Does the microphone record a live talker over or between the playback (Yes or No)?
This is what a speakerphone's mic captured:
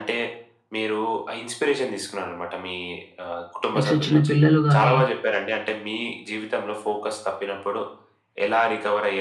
Yes